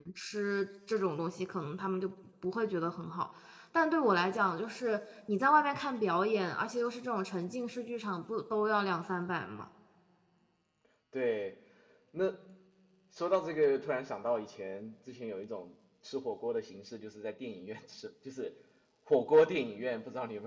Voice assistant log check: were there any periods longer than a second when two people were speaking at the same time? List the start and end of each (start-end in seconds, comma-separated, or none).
none